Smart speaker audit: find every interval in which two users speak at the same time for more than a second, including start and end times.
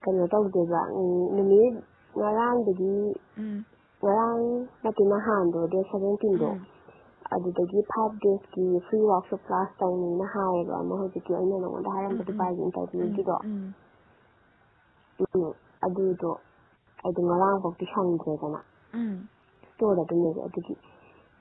none

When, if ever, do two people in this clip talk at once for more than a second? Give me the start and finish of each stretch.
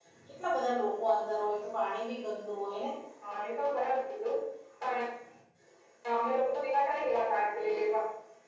none

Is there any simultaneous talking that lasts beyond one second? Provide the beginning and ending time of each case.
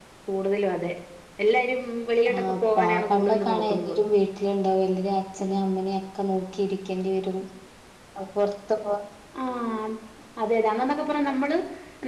2.4-3.9

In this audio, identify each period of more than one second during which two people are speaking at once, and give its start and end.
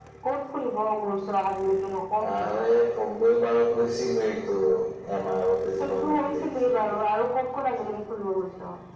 5.8-7.0

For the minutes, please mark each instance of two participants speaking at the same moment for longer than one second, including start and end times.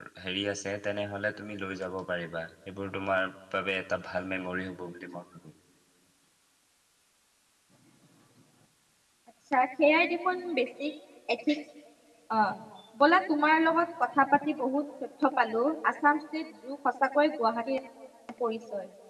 none

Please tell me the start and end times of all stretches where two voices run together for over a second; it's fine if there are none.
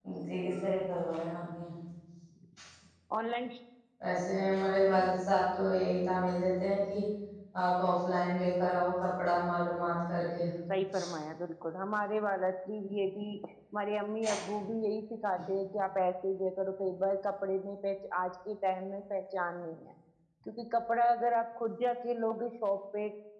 none

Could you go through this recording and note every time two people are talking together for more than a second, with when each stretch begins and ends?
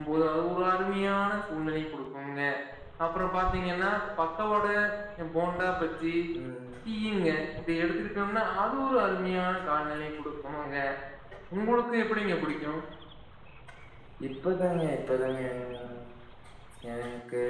none

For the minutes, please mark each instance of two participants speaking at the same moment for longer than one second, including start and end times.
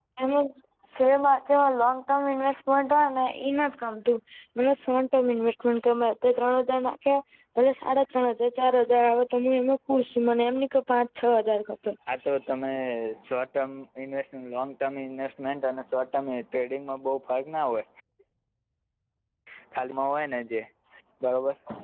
none

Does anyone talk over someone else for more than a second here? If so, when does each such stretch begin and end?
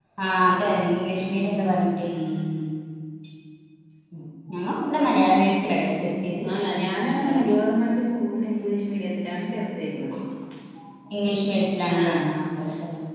none

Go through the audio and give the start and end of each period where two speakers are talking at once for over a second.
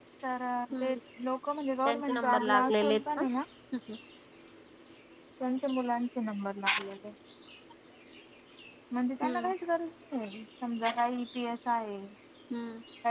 1.8-3.3

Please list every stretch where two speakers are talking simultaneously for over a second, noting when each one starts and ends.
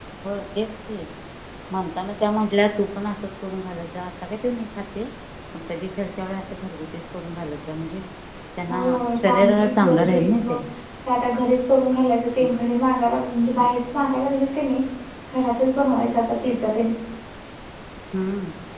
9.3-10.6

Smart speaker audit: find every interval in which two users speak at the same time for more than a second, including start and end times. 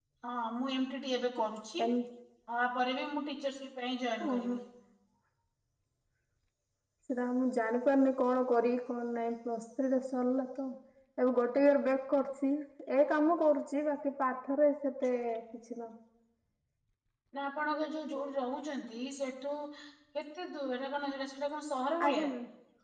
none

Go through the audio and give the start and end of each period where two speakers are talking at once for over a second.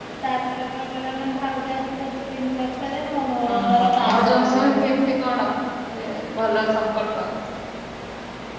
3.5-4.9

